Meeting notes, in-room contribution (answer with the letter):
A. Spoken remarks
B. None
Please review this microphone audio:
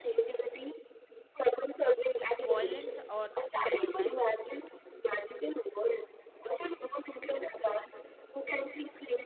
A